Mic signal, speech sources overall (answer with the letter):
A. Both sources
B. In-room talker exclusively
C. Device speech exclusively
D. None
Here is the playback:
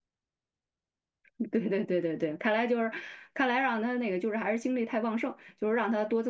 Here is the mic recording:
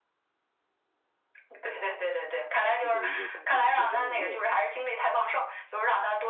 A